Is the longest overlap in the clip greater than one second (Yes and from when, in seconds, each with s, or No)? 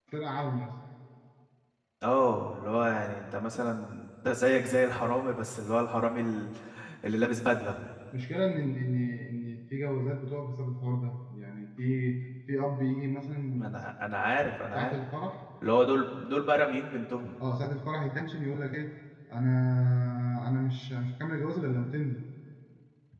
No